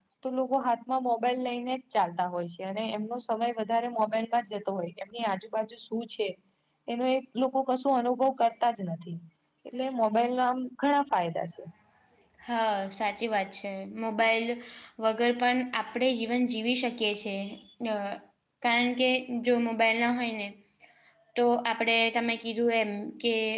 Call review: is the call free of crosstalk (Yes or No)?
Yes